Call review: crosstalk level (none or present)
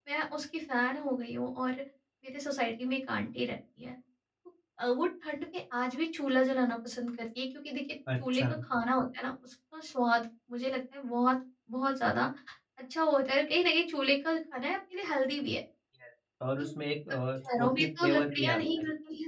present